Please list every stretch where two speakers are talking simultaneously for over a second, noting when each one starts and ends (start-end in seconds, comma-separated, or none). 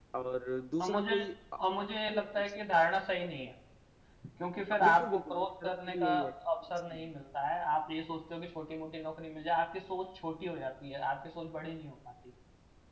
4.8-6.3